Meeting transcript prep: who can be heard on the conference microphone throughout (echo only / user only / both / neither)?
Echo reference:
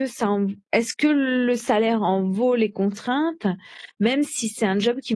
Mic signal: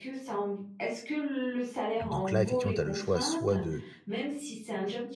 both